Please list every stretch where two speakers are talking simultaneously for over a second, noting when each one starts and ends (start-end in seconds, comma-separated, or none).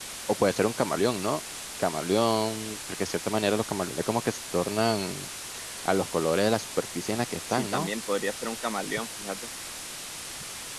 none